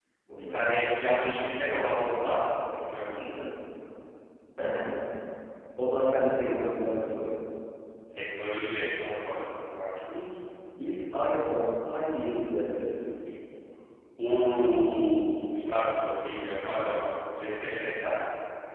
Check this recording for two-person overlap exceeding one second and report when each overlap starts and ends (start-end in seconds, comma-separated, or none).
none